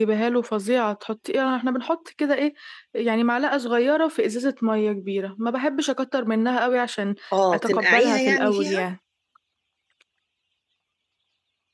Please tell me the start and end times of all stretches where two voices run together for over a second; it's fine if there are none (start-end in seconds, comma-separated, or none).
7.5-8.8